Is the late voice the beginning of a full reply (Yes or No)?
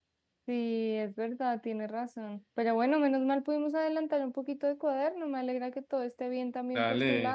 Yes